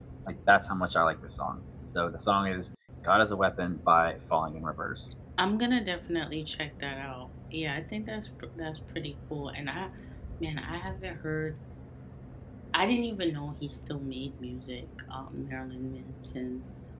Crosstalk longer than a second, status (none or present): none